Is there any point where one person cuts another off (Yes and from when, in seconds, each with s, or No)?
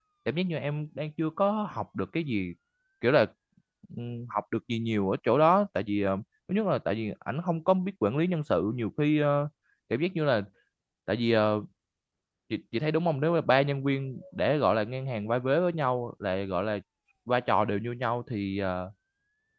No